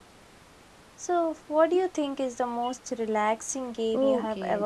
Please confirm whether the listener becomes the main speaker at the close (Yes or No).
Yes